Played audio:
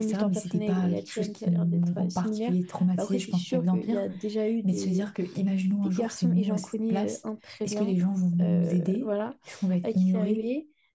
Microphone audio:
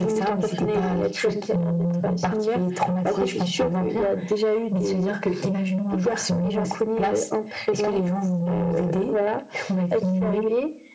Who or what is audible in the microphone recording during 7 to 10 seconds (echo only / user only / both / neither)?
echo only